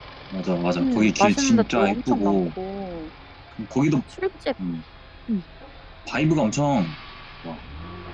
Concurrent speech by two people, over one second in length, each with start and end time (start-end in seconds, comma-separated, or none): 0.8-2.4